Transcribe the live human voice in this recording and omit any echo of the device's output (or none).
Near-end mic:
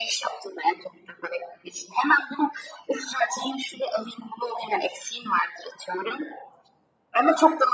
none